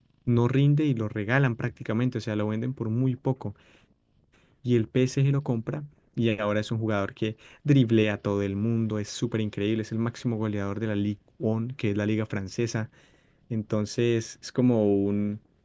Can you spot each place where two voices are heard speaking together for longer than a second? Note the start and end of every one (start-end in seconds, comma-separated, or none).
none